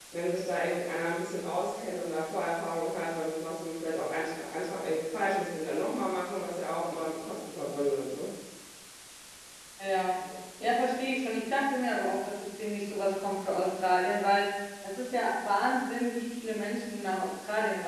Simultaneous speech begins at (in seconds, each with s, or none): none